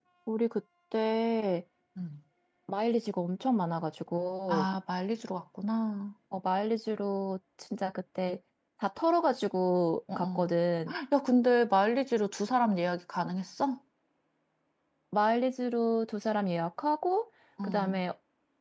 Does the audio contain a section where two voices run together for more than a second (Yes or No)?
No